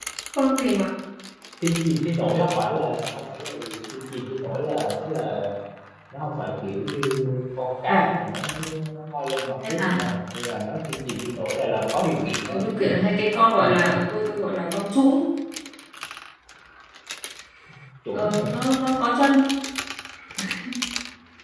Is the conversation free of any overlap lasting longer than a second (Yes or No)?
Yes